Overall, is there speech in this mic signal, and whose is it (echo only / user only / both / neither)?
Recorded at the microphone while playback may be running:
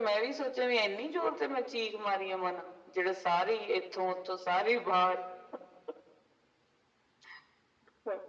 echo only